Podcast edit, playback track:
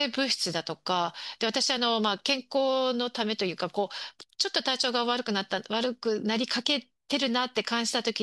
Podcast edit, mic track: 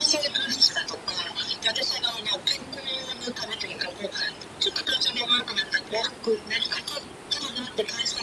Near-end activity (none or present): none